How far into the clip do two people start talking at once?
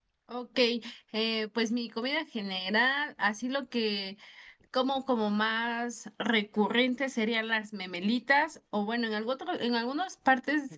none

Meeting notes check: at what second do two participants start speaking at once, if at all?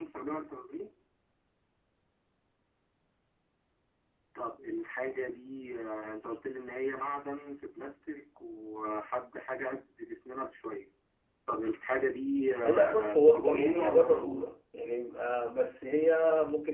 13 s

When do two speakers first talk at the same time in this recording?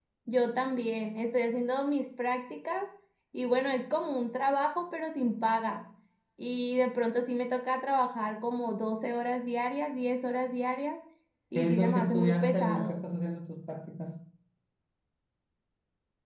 12 s

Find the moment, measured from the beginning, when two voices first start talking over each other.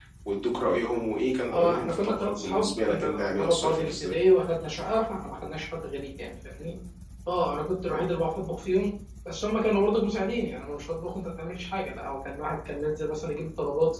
2 s

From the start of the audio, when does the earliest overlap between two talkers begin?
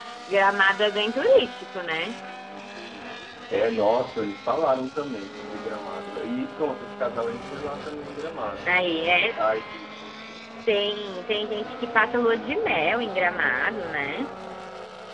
none

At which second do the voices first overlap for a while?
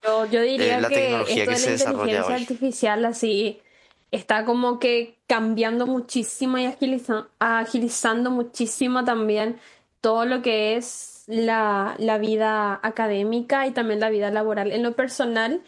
1 s

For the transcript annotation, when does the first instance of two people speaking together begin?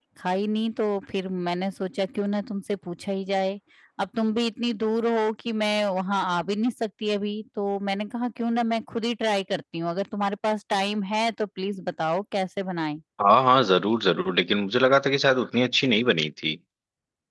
none

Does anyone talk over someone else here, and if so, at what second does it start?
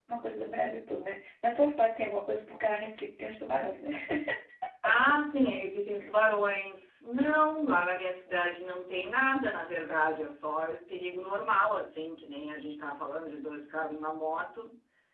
none

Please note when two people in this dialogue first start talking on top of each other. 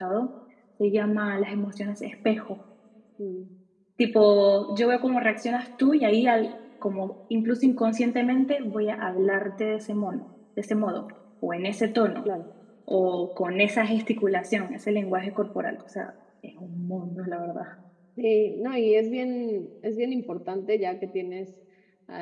none

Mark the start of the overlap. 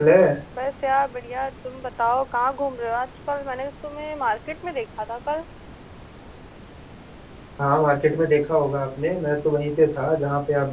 none

